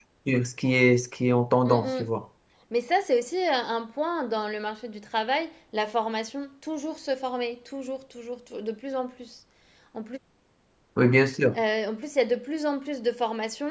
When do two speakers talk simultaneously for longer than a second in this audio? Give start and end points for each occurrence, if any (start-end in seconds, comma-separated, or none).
none